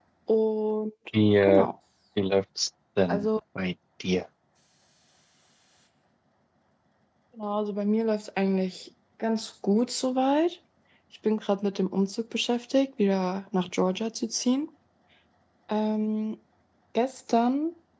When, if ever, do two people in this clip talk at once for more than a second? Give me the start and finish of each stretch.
none

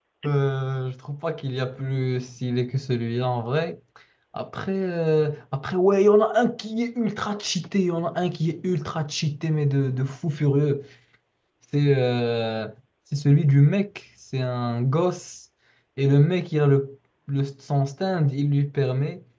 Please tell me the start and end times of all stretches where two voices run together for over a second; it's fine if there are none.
none

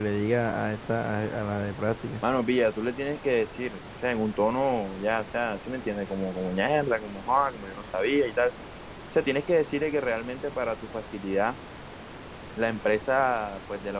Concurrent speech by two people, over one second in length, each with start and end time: none

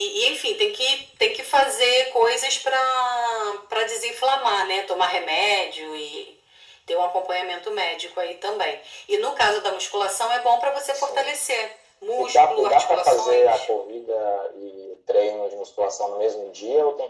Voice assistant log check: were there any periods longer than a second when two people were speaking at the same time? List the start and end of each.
12.2-13.6

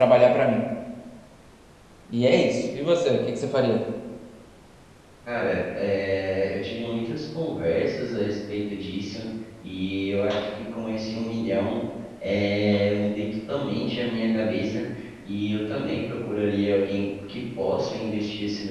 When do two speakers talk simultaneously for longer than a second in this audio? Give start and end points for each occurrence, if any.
none

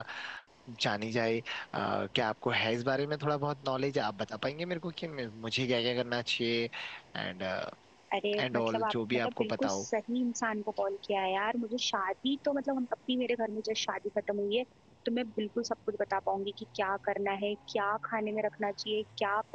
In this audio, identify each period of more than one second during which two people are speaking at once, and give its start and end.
8.4-9.8

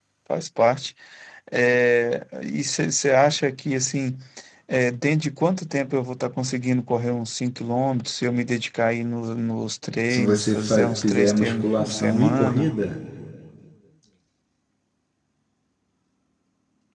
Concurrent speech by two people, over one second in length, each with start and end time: 10.1-12.7

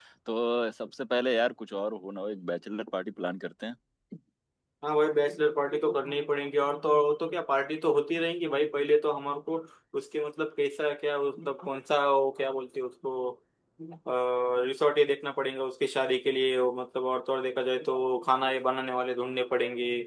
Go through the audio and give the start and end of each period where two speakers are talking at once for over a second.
none

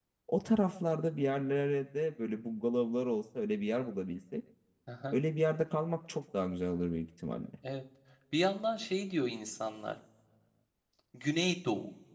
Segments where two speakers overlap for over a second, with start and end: none

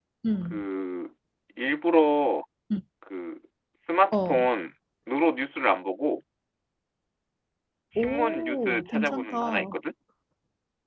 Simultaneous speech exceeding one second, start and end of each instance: 8.0-9.7

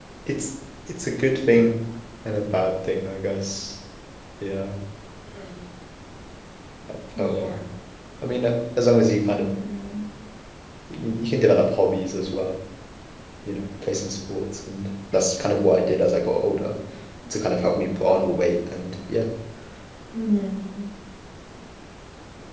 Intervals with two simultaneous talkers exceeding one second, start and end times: none

